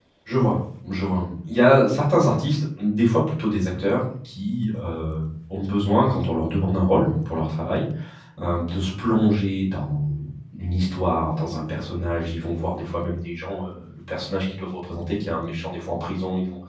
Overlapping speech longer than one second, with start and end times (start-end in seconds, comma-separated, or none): none